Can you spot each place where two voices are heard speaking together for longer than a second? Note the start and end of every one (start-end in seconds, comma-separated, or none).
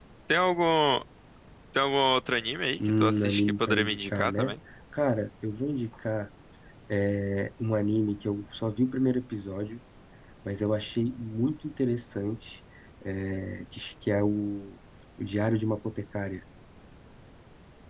3.0-4.5